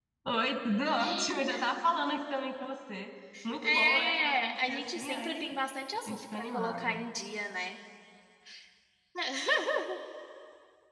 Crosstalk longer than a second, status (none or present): present